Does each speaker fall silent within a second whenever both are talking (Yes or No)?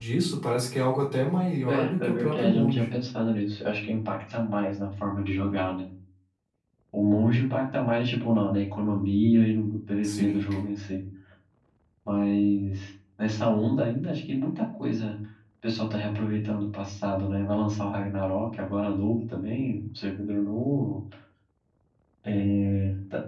No